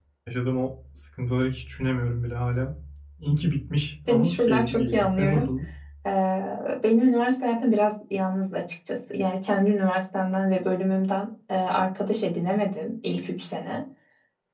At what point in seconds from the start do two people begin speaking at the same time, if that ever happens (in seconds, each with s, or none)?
4.1 s